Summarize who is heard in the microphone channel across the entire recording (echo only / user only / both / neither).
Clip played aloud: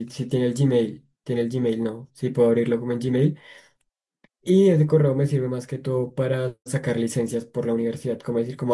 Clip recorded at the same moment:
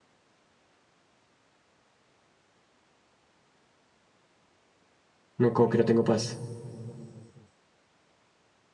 user only